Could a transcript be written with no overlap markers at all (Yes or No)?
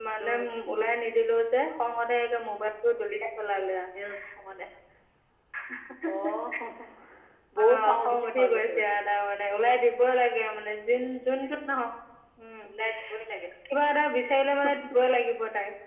No